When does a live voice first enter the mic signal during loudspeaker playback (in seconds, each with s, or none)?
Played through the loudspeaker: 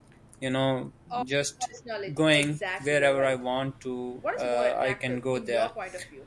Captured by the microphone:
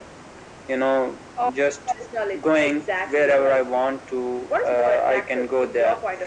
none